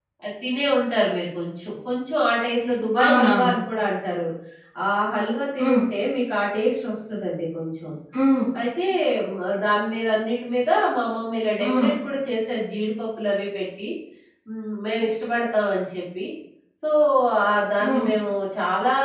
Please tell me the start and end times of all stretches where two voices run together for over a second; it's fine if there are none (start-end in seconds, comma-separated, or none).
none